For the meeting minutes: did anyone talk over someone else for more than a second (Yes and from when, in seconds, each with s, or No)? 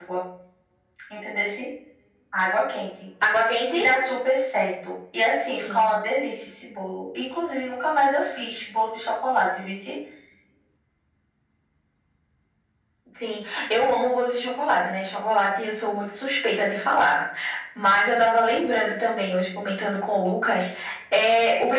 No